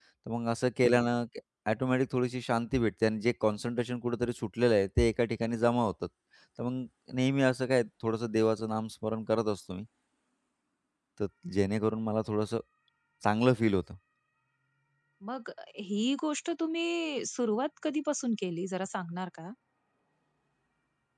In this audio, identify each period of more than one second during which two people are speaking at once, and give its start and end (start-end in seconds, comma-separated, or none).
none